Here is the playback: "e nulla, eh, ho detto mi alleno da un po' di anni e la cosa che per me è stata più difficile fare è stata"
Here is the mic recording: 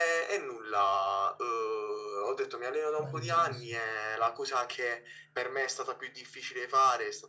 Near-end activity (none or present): present